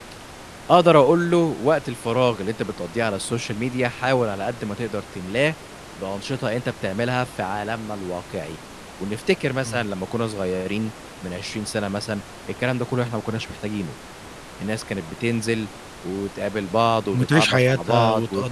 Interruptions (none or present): present